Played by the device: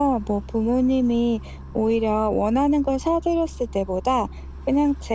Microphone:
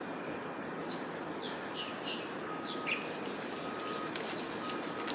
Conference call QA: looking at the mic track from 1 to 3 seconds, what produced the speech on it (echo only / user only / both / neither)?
neither